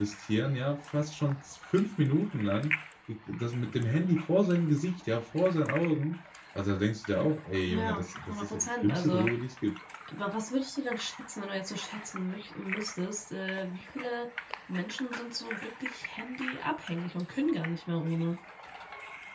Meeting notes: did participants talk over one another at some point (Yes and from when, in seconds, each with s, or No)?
Yes, from 7.7 s